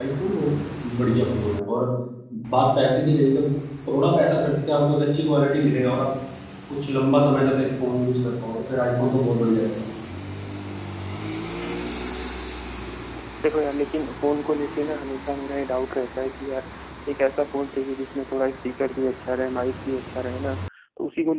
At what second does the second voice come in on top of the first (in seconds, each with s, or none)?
none